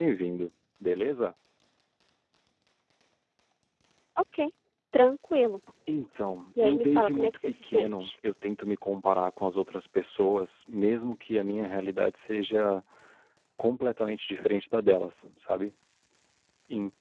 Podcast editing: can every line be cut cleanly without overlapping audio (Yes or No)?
No